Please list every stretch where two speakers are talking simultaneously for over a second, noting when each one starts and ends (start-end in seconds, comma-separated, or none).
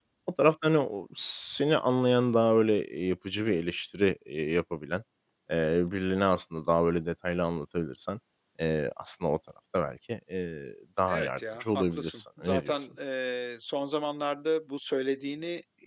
11.1-12.7